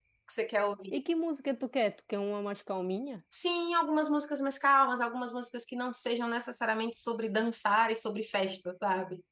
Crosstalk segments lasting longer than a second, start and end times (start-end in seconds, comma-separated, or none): none